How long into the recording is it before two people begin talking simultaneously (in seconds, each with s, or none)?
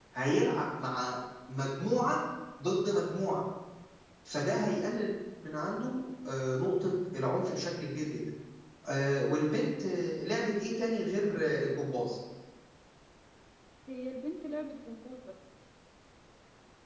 none